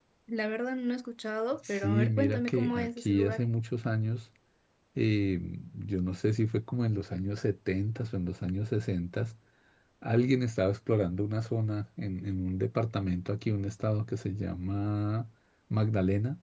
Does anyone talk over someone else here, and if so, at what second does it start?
1.6 s

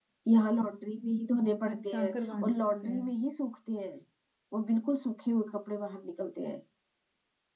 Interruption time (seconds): 1.7 s

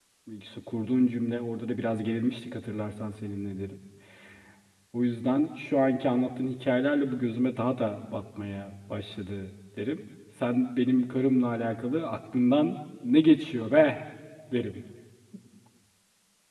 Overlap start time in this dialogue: none

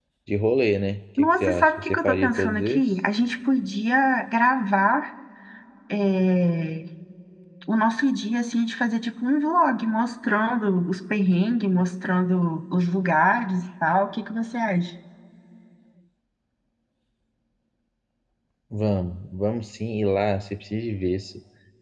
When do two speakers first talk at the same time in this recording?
1.2 s

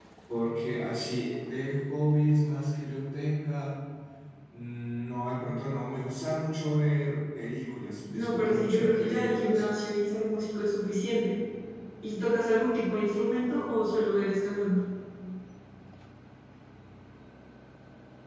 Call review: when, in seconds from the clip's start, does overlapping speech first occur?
8.1 s

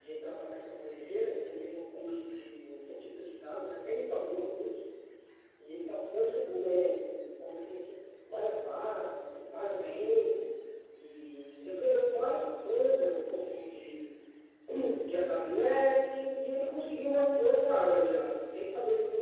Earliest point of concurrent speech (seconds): none

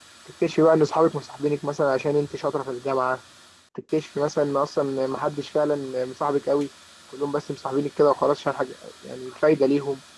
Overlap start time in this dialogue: none

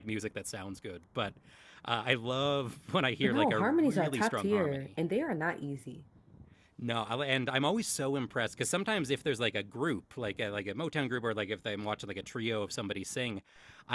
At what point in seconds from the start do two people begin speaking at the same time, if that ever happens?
3.2 s

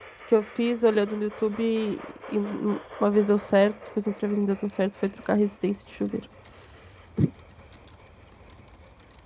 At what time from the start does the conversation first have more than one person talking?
none

